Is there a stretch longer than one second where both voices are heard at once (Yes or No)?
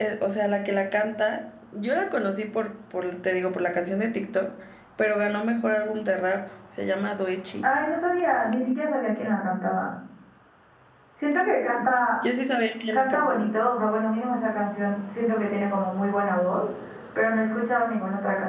No